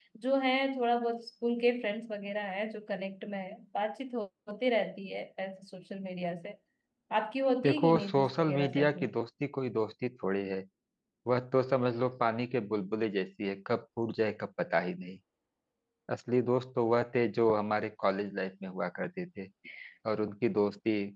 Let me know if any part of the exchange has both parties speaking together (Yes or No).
Yes